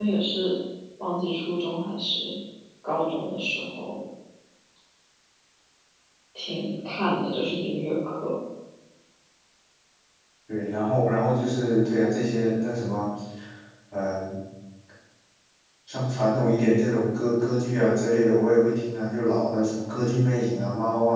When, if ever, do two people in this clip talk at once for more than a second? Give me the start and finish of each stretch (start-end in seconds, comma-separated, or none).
none